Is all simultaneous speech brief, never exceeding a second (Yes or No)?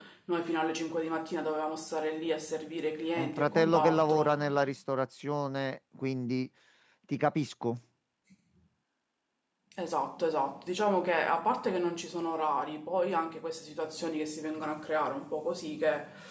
No